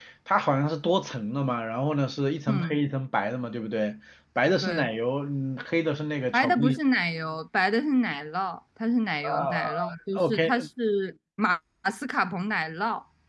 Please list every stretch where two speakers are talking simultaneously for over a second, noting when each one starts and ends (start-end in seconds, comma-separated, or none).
9.2-10.7